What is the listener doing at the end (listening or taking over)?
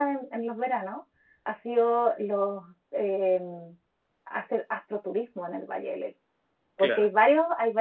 listening